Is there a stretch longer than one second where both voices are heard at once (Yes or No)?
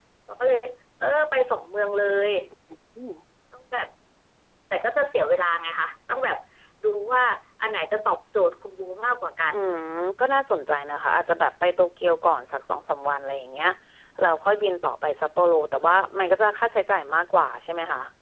No